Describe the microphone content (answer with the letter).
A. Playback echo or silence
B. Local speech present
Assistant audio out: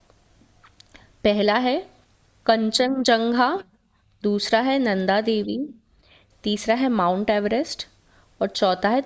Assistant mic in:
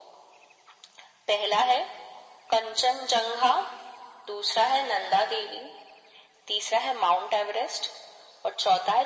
A